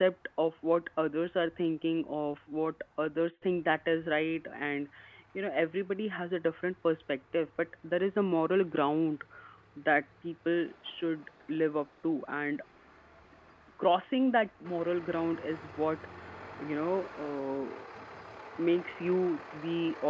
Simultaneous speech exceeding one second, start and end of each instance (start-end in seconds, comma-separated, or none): none